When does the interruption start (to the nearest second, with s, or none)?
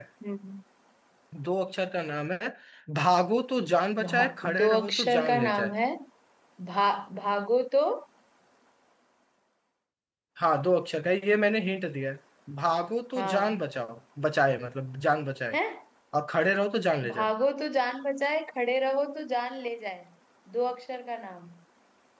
4 s